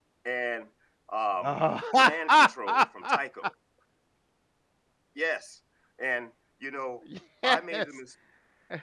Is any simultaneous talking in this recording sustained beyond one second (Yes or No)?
Yes